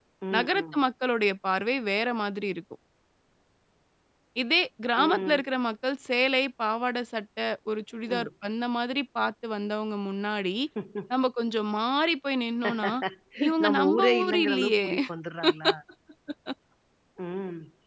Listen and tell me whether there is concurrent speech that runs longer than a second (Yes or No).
Yes